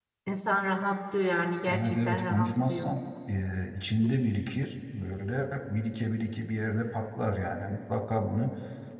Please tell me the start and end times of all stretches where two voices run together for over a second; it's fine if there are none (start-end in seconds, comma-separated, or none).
1.7-3.0